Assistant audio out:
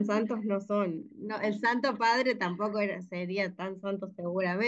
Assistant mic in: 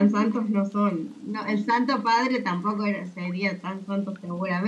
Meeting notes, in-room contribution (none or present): none